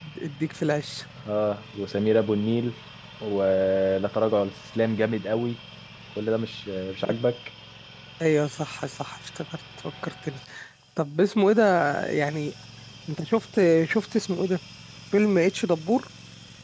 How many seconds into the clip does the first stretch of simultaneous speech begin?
none

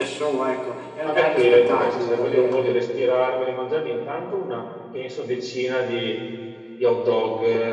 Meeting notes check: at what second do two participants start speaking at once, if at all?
1.0 s

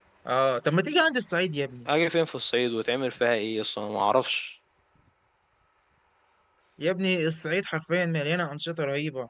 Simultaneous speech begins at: none

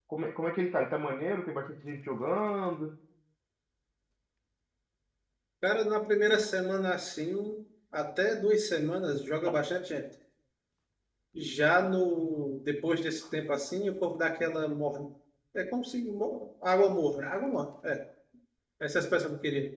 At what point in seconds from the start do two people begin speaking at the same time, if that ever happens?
none

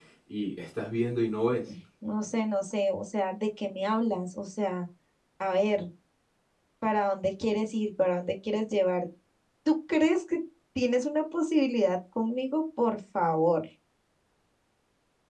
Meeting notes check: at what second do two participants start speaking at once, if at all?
none

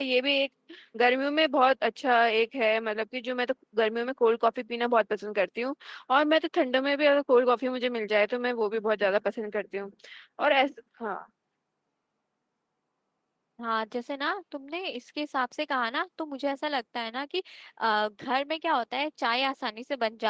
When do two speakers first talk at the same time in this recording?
none

